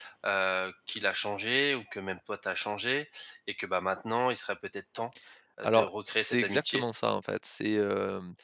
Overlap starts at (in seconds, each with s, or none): 5.6 s